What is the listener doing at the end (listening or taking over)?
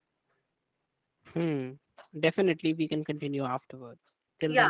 taking over